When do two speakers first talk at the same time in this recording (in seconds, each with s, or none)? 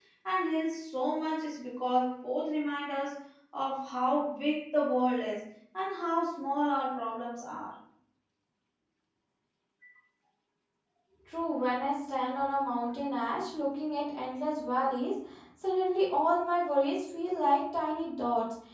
none